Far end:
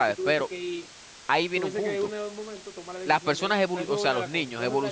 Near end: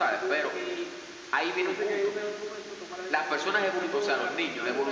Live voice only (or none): none